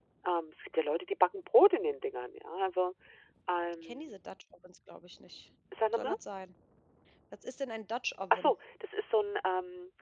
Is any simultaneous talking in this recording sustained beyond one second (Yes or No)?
No